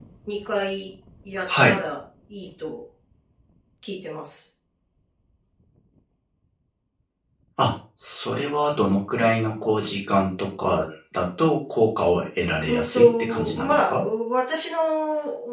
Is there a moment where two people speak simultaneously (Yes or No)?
Yes